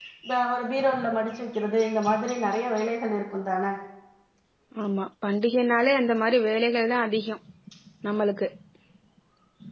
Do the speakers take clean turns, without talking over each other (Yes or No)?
Yes